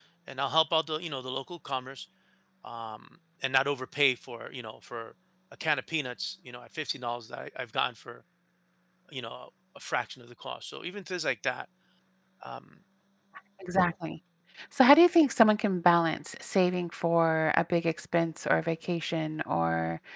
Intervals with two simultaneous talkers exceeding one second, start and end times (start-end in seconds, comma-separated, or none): none